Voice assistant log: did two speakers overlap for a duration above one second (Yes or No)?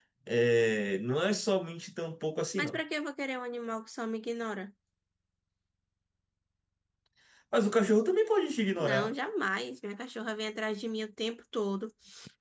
No